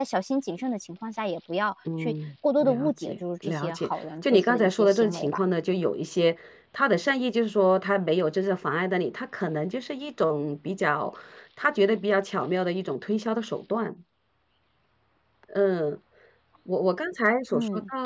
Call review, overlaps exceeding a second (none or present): present